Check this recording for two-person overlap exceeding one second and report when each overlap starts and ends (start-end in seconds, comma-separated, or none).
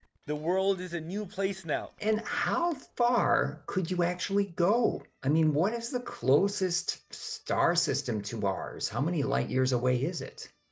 none